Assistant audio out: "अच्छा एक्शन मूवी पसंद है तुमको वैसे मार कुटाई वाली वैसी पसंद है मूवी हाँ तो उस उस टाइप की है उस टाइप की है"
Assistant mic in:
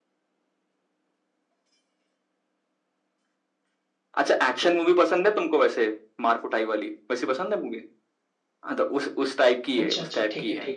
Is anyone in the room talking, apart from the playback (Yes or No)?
Yes